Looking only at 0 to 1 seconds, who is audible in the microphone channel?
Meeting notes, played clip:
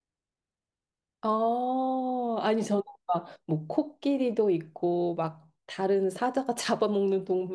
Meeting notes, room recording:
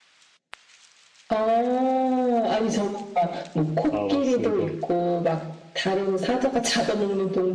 neither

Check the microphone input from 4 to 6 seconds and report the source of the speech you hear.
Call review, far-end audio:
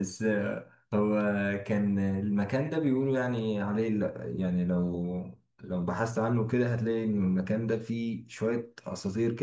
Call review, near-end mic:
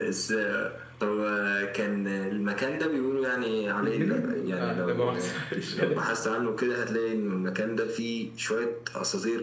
both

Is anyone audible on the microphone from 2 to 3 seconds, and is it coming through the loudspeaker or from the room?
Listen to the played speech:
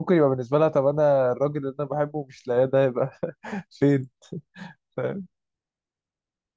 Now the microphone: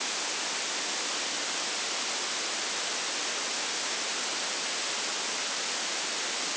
neither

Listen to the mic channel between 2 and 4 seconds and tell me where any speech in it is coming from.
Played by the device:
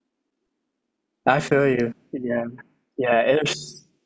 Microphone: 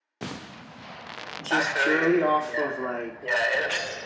both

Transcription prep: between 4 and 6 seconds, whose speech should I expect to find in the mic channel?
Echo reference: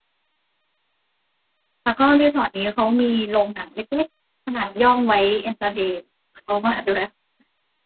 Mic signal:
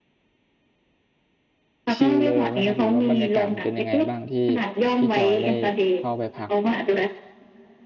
both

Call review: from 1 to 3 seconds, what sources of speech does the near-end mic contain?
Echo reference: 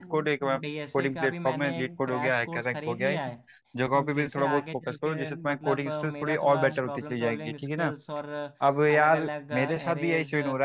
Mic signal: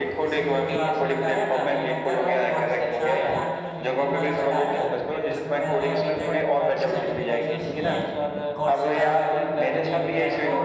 both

